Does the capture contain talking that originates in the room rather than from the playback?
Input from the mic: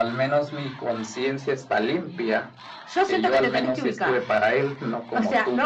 No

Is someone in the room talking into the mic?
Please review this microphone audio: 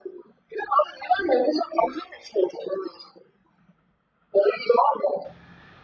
No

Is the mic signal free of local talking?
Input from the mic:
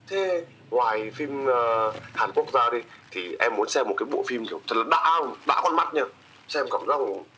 Yes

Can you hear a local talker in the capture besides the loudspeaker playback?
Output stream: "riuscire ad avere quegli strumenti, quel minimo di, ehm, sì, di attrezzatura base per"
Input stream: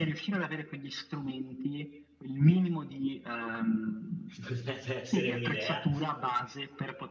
Yes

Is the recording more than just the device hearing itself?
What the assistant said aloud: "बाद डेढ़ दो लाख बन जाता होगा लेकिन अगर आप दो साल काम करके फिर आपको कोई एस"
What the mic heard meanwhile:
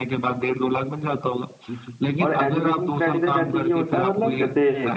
Yes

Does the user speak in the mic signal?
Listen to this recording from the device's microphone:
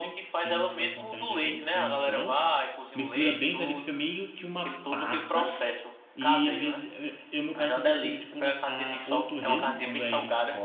Yes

